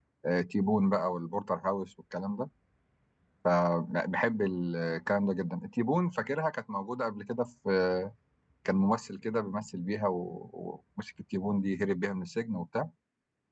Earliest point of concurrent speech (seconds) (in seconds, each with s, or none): none